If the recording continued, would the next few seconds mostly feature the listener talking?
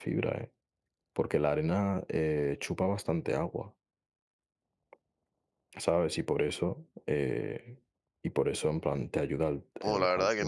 Yes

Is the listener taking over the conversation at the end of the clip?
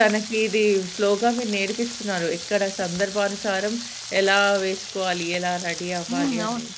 Yes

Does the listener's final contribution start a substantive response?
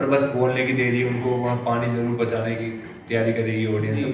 Yes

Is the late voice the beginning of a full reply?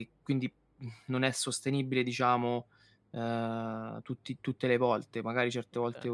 No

